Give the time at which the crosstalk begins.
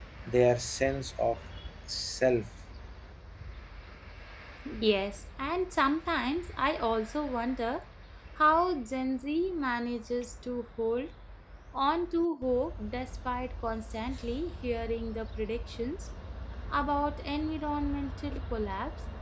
none

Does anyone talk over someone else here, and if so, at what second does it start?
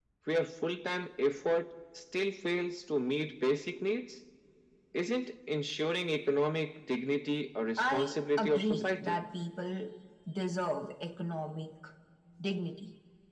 8 s

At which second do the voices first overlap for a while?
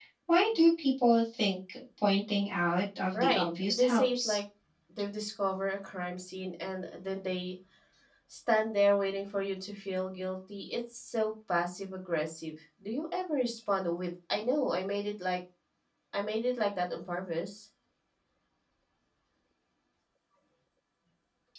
3 s

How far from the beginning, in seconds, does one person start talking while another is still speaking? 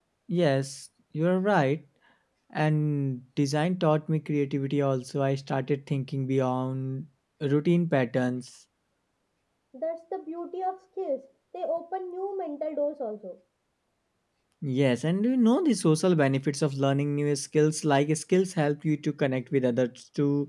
none

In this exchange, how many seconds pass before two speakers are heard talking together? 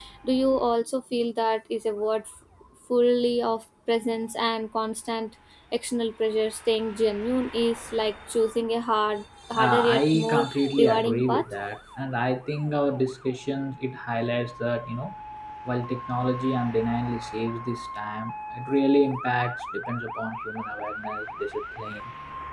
10 s

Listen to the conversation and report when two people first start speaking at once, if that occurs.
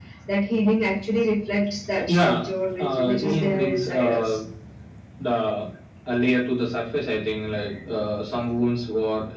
2 s

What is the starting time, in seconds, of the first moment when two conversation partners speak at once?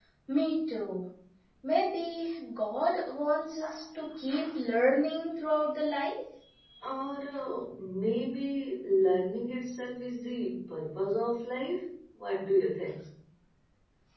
none

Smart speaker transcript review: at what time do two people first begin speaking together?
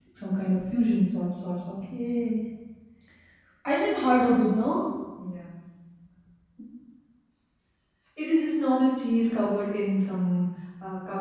none

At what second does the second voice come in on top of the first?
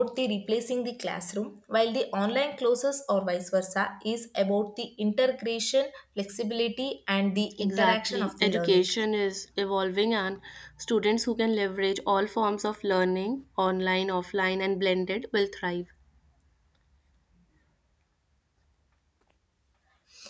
8 s

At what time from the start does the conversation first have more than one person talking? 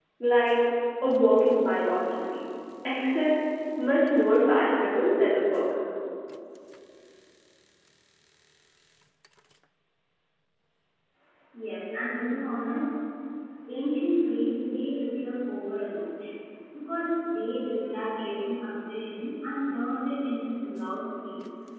none

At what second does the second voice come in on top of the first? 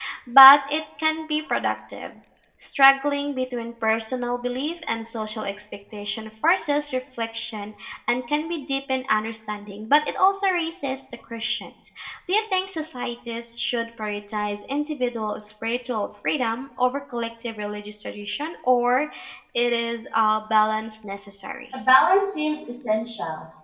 none

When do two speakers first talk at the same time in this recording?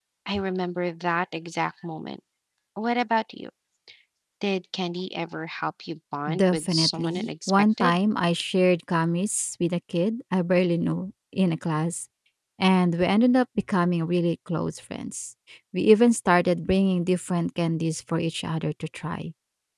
6 s

